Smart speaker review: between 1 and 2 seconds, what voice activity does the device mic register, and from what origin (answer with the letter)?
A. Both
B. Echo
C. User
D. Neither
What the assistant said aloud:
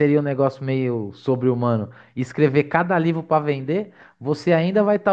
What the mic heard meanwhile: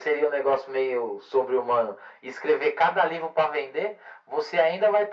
B